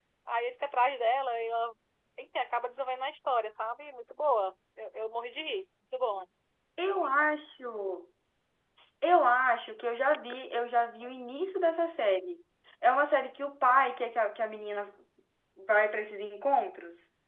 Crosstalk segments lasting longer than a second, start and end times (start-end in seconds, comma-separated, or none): none